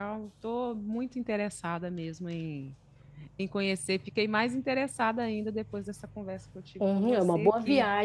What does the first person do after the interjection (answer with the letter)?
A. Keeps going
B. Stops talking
B